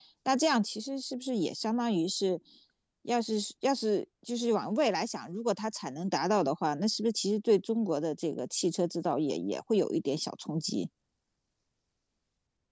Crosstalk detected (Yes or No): No